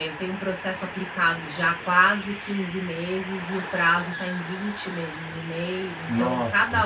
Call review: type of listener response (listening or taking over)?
listening